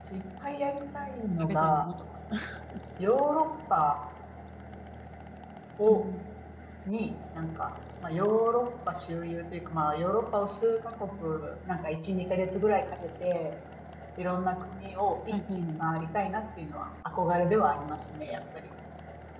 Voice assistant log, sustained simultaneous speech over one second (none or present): none